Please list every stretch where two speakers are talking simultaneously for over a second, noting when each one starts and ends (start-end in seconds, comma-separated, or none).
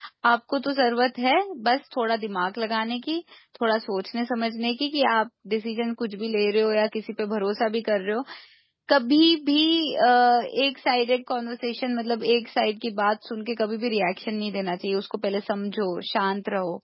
none